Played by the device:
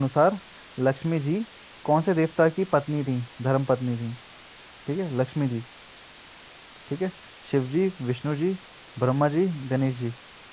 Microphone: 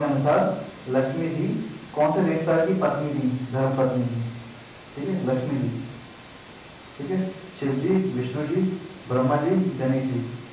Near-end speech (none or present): none